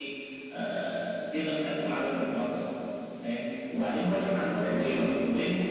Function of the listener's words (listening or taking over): listening